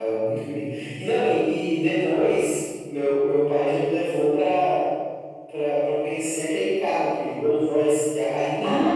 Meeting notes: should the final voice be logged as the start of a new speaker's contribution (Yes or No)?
Yes